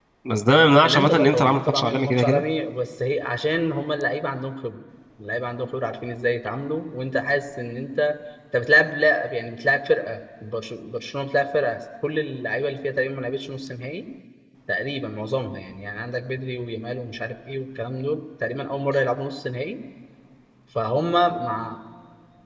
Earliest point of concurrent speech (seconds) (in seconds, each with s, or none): 0.8 s